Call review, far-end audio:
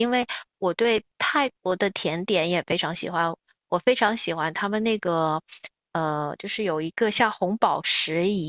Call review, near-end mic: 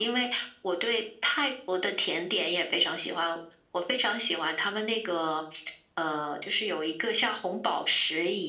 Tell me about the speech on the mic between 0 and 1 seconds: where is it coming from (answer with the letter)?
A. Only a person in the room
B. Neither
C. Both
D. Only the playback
D